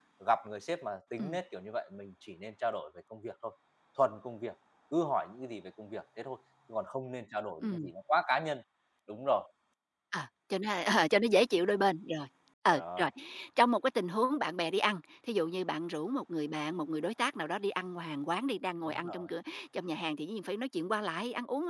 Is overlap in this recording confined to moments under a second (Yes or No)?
Yes